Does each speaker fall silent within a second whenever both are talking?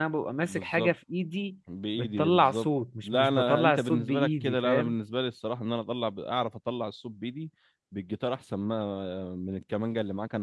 No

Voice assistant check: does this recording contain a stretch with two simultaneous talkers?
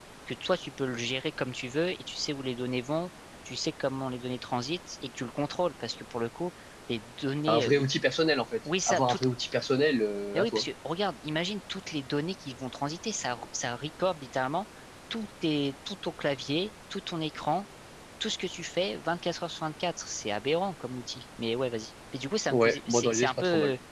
Yes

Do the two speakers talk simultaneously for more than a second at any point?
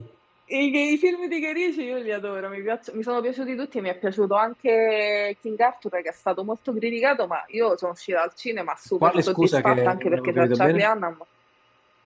Yes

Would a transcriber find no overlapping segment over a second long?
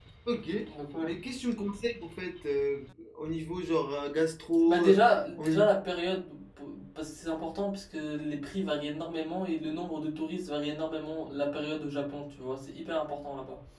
Yes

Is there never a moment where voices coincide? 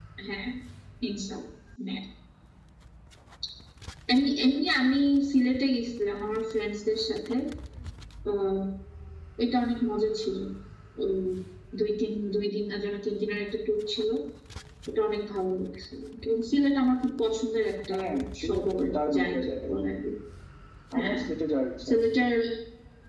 No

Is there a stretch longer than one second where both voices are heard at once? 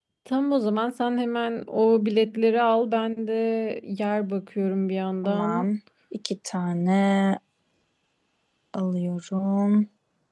No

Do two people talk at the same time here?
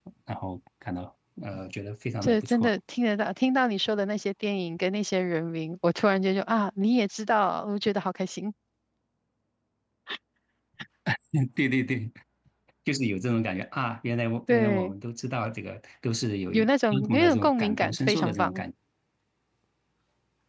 Yes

